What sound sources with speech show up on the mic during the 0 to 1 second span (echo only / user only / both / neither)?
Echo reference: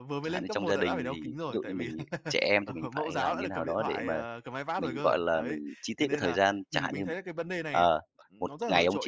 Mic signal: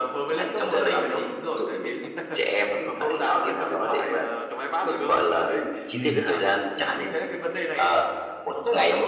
echo only